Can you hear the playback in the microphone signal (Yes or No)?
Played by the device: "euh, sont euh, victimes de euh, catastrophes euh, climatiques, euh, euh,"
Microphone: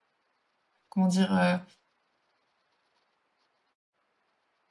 No